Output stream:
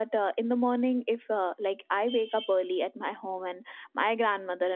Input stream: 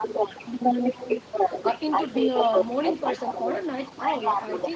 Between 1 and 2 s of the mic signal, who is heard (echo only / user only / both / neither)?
both